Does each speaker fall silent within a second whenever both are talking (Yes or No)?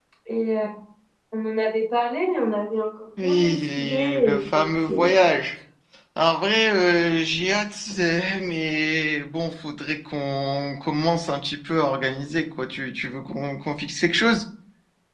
No